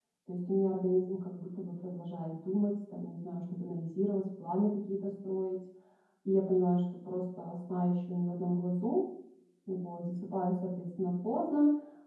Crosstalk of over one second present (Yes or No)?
No